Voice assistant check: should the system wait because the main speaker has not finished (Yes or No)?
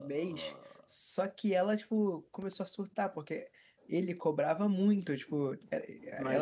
Yes